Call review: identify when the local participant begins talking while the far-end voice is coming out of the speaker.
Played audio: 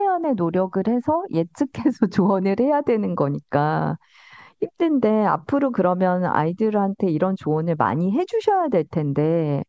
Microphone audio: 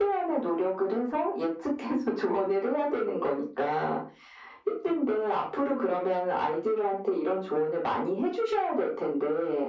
none

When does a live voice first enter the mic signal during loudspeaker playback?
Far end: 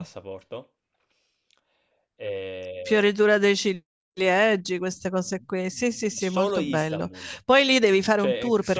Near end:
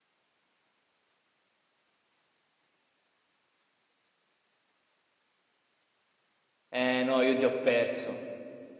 6.7 s

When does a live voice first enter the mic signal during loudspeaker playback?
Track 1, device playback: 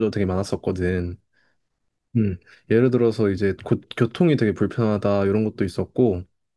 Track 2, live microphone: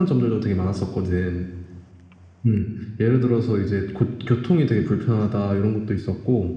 none

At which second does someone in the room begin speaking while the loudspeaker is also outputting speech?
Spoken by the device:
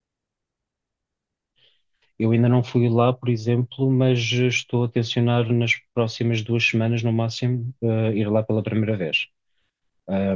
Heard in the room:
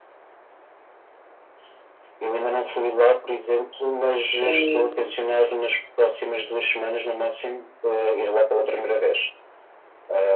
4.4 s

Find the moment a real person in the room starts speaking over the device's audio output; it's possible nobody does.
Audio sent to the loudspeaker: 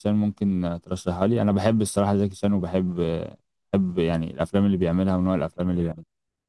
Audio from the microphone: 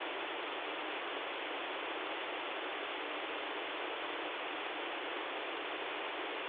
none

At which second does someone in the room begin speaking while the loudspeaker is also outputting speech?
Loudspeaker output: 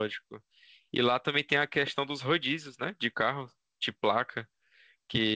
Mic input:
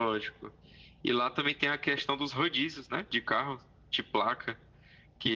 none

